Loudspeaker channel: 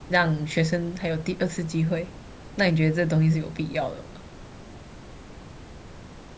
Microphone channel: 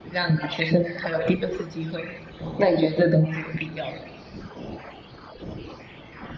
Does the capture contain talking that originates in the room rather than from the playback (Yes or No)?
No